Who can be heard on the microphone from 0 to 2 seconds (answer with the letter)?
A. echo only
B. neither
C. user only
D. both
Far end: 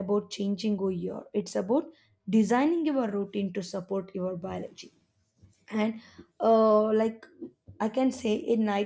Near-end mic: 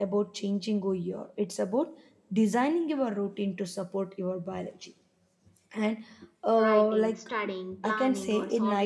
A